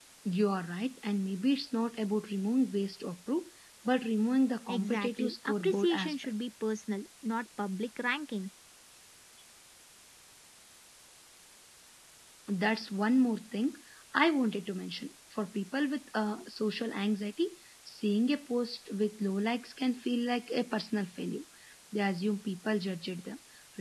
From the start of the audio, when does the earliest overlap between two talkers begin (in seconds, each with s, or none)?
4.7 s